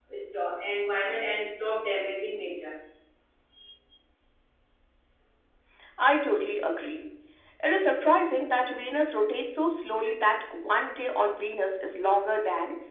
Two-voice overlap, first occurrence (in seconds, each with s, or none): none